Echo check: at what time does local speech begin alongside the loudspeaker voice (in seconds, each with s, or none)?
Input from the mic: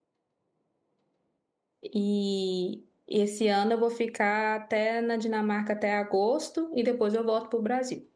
1.8 s